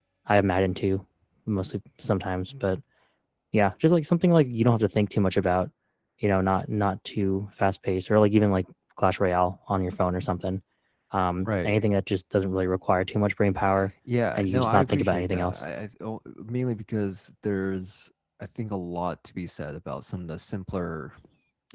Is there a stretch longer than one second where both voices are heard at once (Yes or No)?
Yes